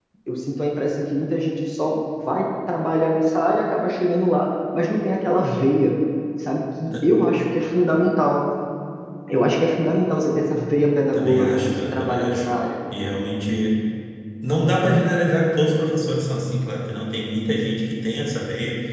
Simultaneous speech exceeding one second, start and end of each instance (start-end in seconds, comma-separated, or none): 11.1-12.5